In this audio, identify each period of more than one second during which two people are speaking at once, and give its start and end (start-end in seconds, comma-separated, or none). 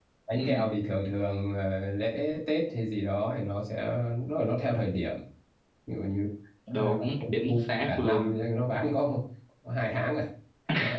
6.8-8.4